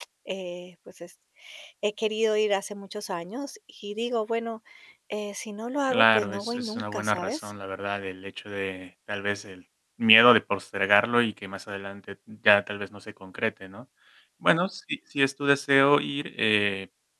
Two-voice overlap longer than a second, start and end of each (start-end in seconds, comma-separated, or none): 5.9-7.5